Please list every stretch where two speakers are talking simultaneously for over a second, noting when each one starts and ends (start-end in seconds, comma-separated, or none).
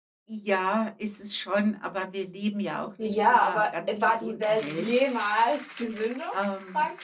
3.0-4.9